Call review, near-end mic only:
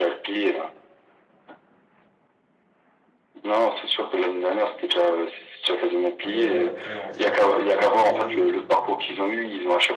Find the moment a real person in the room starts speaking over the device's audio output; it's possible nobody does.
6.2 s

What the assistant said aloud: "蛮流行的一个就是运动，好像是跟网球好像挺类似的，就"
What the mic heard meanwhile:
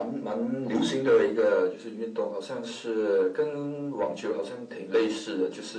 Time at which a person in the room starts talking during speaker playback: none

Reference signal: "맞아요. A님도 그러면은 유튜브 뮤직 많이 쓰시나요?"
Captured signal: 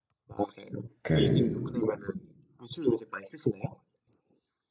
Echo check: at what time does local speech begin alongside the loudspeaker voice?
1.0 s

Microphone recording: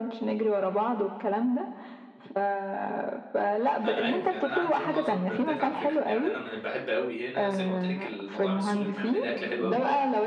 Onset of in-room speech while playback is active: 3.8 s

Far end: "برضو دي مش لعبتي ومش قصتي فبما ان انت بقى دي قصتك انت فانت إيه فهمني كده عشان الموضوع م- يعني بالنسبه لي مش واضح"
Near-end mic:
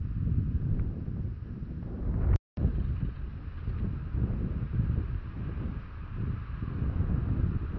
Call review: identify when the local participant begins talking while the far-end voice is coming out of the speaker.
none

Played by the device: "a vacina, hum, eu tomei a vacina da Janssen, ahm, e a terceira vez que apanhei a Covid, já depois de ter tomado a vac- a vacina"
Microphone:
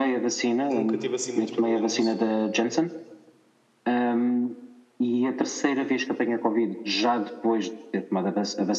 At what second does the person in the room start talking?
0.7 s

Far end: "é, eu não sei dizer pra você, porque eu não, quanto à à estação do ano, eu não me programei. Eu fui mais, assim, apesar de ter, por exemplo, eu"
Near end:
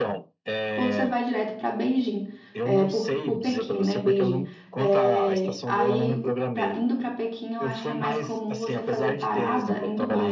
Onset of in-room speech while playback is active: 0.8 s

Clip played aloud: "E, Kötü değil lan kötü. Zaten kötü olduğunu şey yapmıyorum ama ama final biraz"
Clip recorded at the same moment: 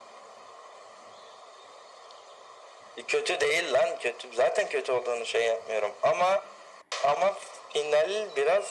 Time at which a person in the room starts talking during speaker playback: none

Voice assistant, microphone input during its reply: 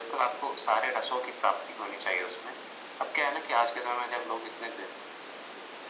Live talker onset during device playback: none

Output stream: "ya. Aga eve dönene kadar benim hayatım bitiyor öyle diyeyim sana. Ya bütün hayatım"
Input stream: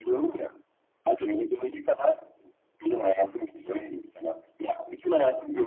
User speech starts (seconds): none

